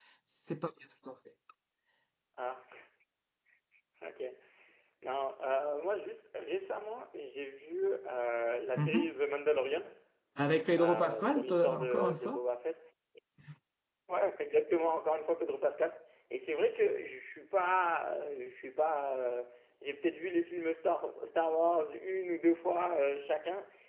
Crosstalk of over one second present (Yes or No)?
Yes